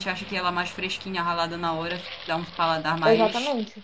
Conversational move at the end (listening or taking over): taking over